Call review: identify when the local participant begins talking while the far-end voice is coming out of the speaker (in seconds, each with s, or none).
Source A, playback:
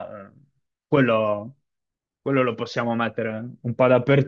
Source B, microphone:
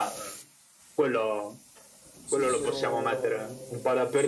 2.2 s